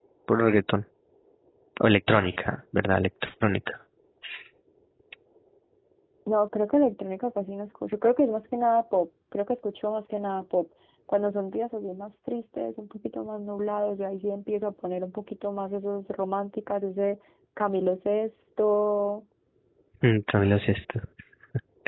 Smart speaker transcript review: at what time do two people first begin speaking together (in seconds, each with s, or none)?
none